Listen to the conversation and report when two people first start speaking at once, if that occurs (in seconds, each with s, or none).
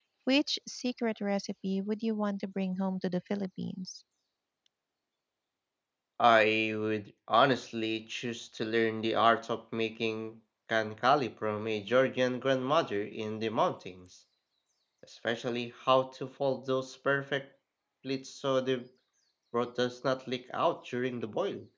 none